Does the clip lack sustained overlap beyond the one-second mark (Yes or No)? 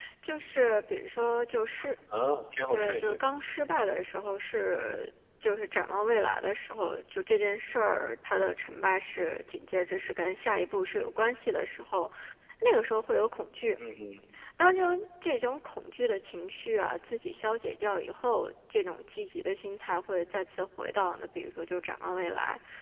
Yes